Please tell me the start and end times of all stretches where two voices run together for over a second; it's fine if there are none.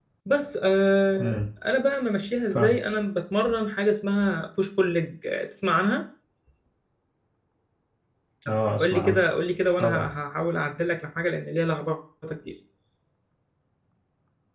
none

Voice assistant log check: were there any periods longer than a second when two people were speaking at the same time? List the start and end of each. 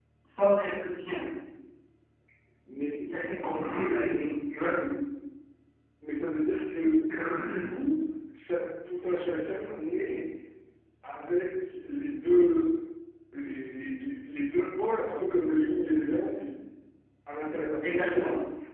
none

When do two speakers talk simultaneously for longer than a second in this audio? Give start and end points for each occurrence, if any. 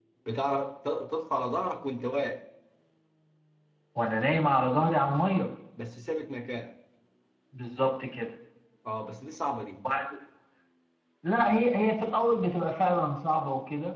none

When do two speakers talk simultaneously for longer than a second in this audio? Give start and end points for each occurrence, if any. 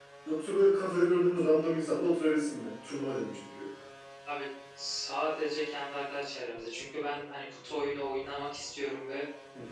none

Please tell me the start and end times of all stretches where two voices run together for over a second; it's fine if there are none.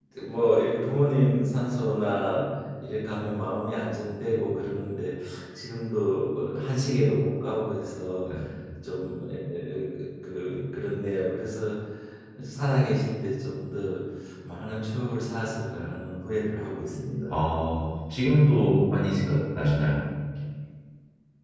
none

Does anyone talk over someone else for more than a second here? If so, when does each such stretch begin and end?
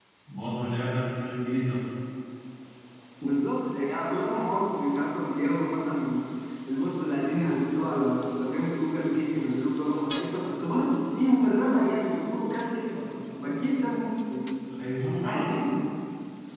none

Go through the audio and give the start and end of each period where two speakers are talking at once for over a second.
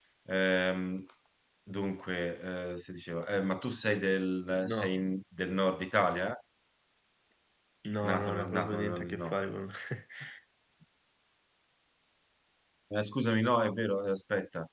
8.0-9.3

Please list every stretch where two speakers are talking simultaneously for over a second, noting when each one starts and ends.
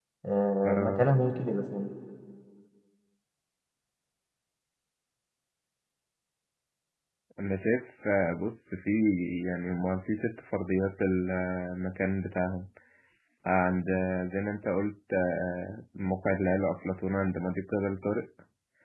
none

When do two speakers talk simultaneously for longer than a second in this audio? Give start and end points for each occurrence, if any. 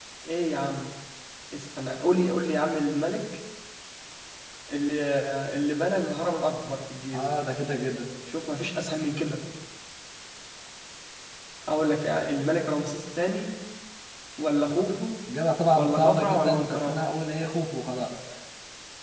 15.8-17.0

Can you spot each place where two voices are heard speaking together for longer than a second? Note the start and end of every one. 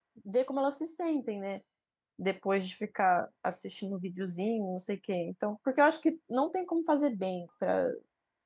none

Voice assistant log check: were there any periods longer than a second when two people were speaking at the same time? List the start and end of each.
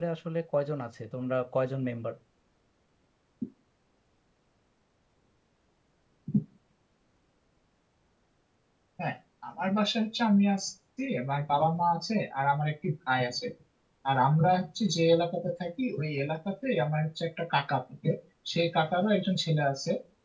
none

